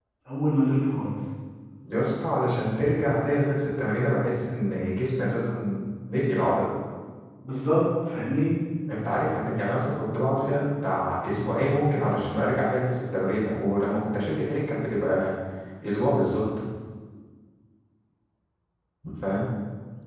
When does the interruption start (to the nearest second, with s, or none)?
none